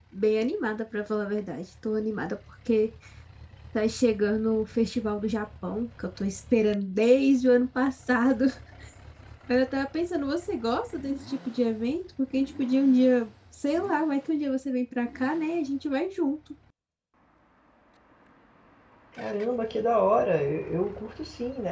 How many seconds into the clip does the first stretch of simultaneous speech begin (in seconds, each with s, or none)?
none